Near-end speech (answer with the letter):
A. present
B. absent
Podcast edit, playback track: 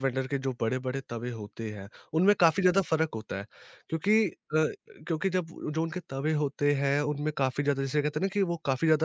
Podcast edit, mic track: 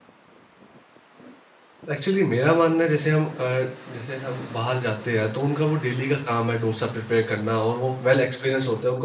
A